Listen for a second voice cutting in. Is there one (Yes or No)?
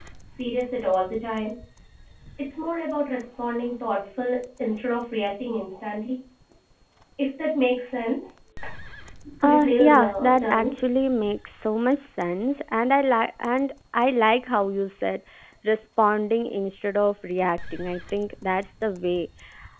Yes